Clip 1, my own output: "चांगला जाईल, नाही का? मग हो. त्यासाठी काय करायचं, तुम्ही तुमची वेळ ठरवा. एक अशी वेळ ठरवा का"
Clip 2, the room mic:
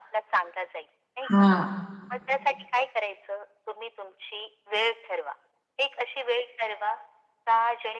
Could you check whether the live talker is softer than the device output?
No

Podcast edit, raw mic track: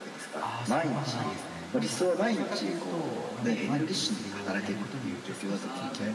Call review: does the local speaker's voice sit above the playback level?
No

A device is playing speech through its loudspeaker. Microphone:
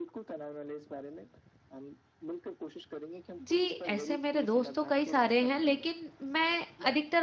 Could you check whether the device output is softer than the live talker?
Yes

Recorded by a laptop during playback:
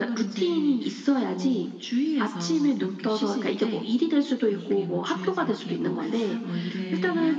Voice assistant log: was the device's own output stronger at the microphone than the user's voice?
Yes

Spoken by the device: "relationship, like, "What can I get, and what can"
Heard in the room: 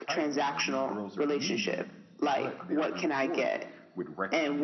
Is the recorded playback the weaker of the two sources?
No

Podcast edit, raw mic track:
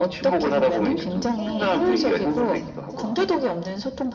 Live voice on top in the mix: No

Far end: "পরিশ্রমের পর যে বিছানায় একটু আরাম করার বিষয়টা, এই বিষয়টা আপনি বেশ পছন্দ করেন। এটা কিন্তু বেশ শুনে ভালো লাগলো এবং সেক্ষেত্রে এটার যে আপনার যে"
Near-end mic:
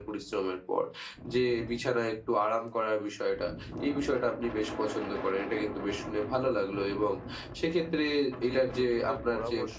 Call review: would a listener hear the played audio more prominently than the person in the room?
Yes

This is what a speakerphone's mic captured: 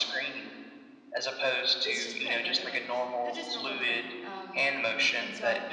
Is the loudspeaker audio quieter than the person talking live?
No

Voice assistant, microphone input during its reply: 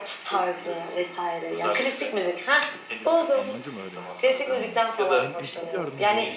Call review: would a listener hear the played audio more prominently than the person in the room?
Yes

